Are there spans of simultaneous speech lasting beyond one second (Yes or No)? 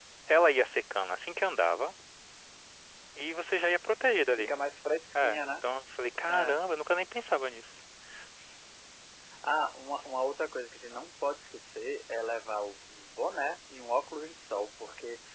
No